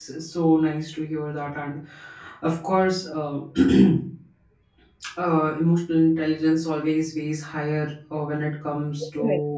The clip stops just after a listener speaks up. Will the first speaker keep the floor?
Yes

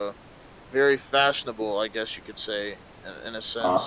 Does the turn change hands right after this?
No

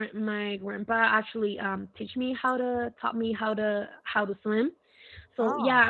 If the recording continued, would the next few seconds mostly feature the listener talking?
No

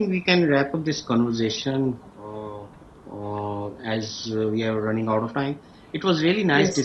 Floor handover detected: No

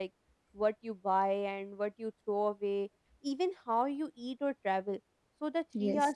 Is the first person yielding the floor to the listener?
No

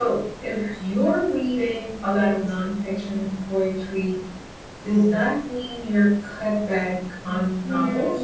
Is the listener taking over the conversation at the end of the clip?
Yes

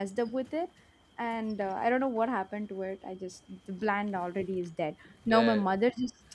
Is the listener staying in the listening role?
Yes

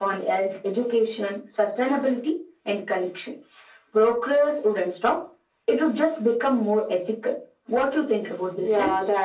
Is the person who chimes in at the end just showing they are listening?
No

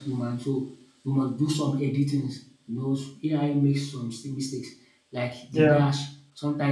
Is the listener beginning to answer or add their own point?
No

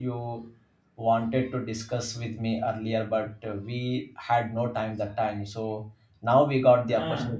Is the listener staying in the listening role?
Yes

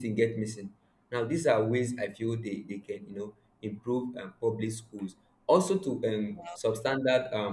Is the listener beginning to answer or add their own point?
No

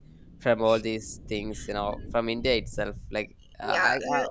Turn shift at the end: Yes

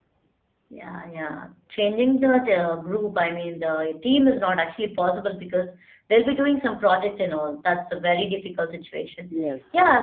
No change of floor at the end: Yes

